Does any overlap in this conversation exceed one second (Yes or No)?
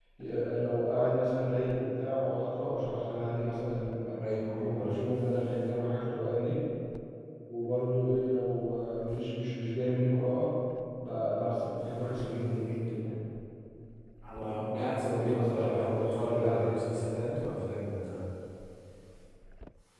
Yes